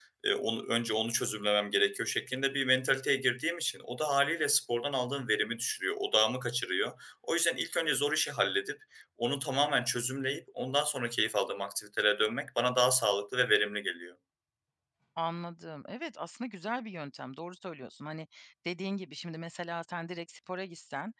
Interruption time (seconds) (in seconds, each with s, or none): none